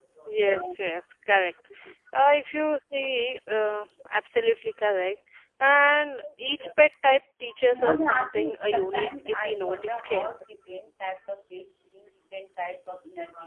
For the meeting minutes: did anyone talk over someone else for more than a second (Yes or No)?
Yes